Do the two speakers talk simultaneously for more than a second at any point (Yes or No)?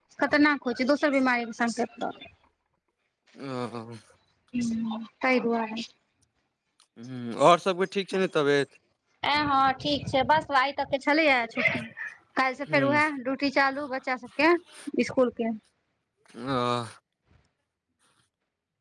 No